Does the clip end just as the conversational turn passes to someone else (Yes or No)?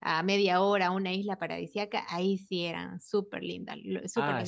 Yes